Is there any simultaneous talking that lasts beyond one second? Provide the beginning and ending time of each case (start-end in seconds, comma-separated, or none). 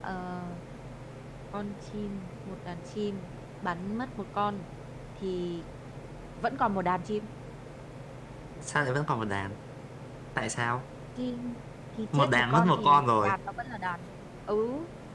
12.1-13.3